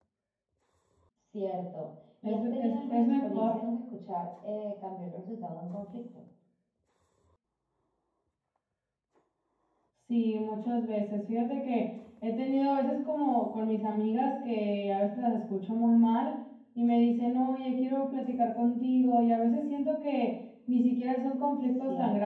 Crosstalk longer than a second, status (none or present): present